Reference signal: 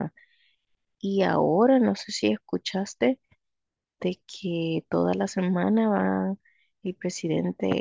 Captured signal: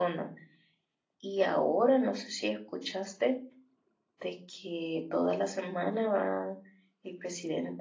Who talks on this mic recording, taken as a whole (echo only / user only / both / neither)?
echo only